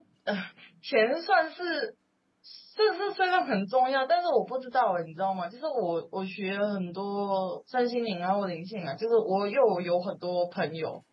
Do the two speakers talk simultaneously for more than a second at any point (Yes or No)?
No